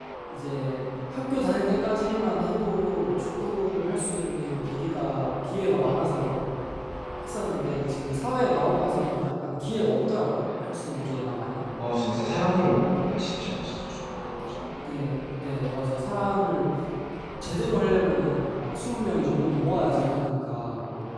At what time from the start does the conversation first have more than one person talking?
none

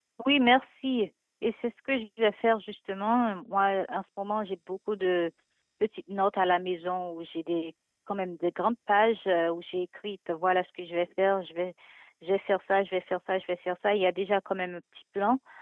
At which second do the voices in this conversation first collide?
none

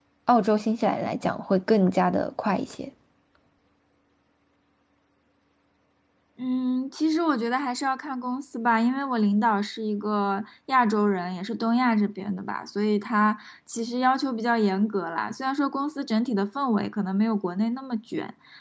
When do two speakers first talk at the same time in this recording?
none

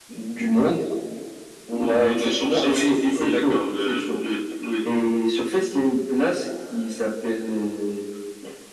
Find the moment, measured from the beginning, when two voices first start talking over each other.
1.8 s

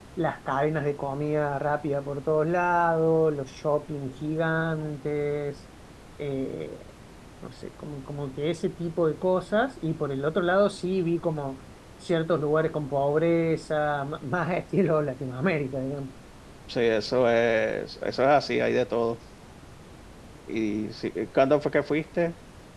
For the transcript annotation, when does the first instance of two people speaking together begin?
none

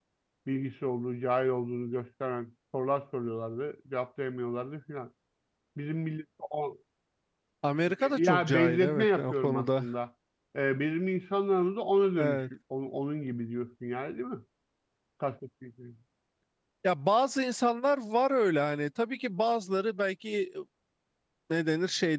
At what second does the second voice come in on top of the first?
8.2 s

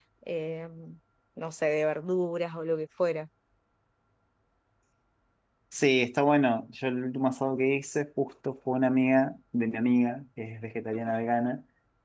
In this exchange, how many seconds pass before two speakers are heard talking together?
none

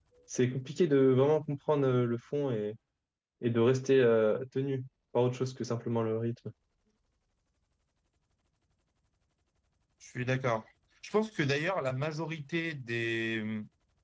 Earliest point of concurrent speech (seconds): none

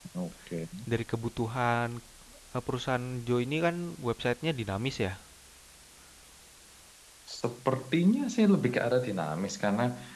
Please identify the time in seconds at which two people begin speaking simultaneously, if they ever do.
none

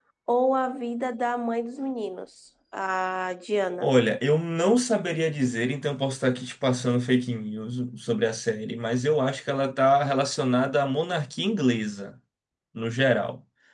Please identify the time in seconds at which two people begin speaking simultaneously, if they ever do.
none

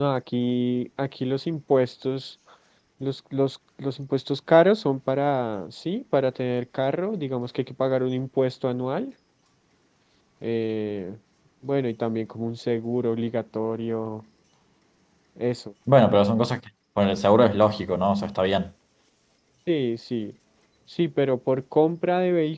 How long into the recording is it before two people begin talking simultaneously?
none

